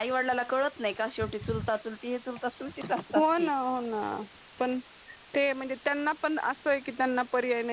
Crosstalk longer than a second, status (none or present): none